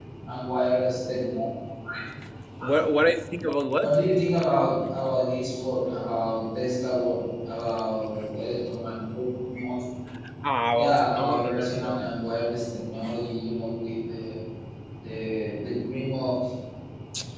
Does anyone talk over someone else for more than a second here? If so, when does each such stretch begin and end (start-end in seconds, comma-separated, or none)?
10.8-12.1